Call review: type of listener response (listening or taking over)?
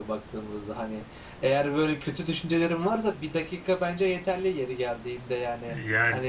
taking over